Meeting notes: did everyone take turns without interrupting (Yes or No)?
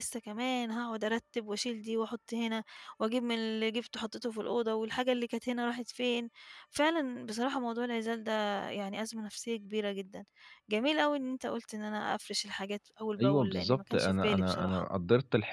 No